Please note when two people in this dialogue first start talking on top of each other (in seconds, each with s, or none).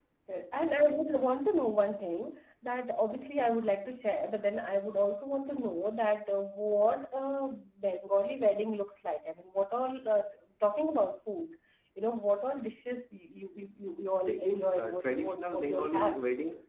14.3 s